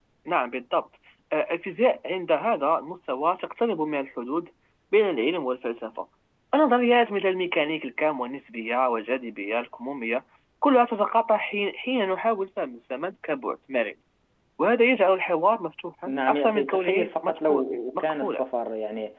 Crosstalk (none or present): present